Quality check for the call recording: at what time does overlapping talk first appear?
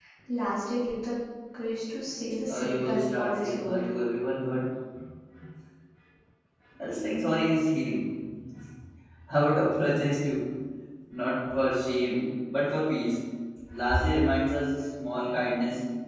2 s

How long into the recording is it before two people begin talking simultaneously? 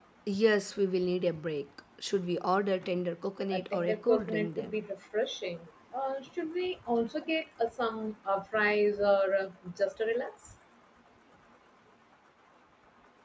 4 s

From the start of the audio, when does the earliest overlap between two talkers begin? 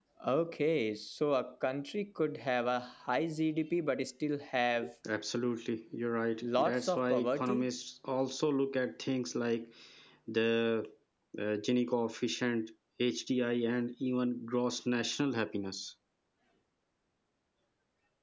6 s

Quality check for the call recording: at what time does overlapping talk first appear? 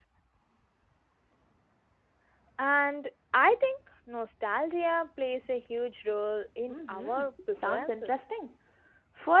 7 s

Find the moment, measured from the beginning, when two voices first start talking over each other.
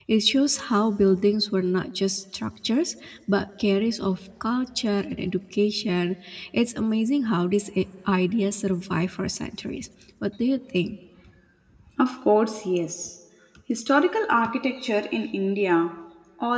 none

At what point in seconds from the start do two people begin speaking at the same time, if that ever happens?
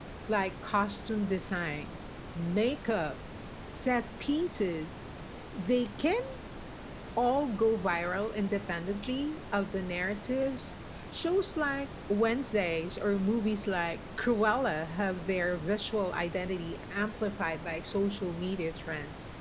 none

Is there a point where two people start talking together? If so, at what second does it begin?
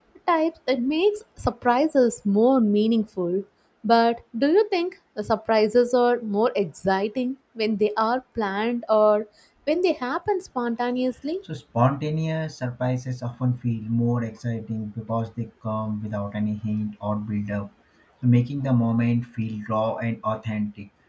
none

